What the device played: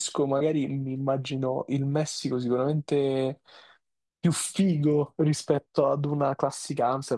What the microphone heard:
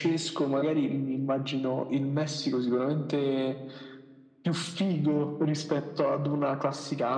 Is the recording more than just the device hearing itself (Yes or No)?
No